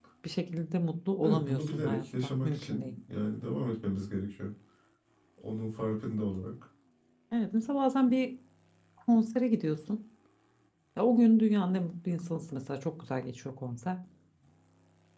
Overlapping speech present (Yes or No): Yes